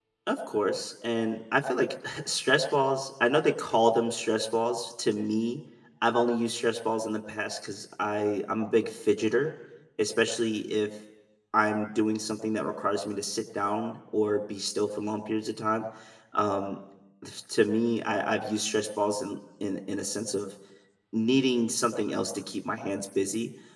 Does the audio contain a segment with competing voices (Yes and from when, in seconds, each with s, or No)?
No